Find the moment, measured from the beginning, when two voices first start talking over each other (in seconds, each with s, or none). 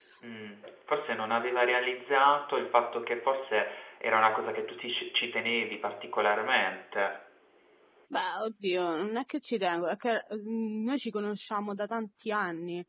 none